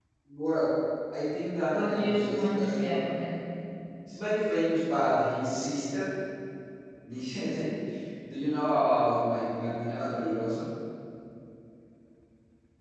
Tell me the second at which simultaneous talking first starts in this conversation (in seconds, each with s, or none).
1.7 s